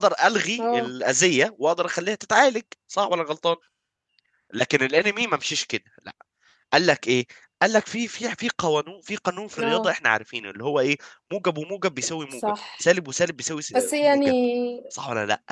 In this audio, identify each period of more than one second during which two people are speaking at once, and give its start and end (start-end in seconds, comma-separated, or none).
none